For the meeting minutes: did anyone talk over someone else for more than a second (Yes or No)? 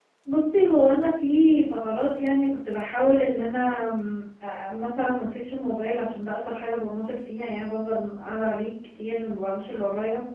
No